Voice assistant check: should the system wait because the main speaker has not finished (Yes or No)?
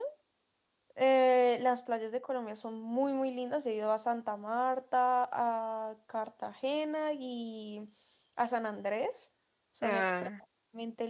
Yes